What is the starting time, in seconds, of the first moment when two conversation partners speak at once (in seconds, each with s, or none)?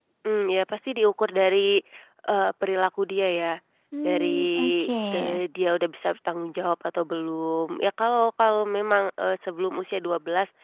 4.0 s